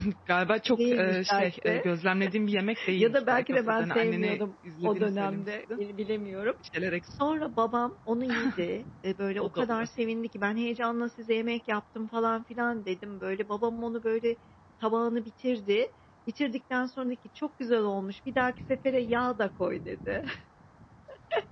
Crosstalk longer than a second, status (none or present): present